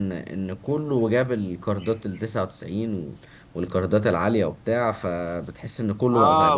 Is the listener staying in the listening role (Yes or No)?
No